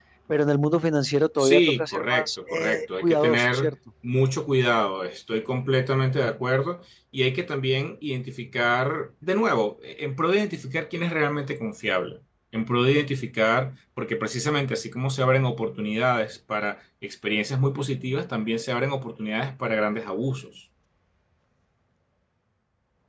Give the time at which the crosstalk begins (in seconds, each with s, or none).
1.4 s